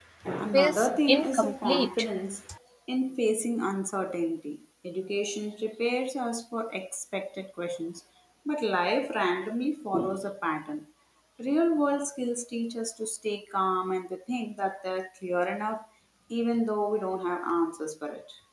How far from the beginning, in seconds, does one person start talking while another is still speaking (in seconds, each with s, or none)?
0.5 s